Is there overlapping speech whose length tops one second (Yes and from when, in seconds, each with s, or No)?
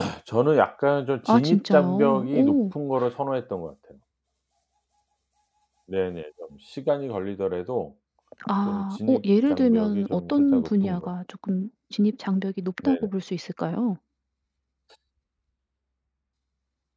Yes, from 1.3 s